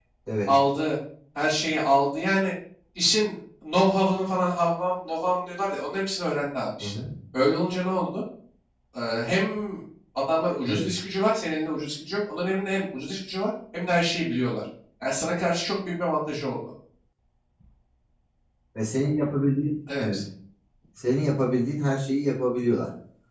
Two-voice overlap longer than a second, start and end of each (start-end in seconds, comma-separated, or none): none